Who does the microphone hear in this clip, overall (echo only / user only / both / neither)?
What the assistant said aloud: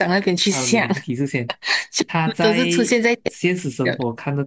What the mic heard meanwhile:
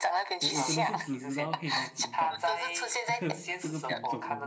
both